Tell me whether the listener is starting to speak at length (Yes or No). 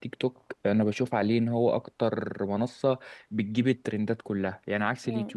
No